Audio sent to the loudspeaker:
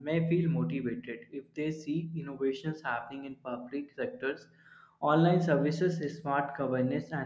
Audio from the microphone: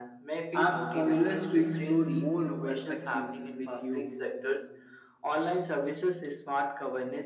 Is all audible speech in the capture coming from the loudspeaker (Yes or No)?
No